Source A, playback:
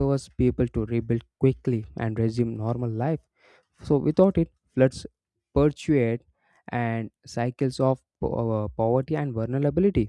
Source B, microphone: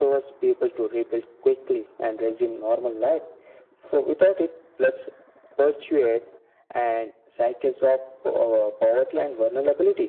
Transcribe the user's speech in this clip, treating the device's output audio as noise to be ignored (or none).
none